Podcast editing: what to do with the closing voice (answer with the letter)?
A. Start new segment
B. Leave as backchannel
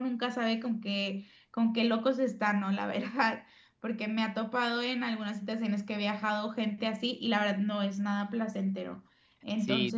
A